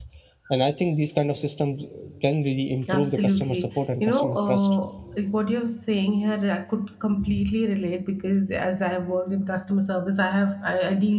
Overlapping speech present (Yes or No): Yes